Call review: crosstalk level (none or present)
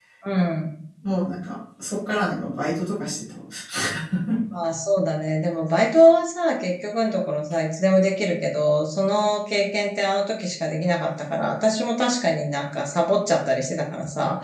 none